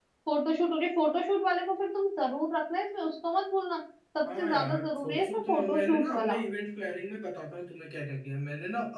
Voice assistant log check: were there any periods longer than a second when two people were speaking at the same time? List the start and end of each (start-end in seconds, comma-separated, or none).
4.4-6.4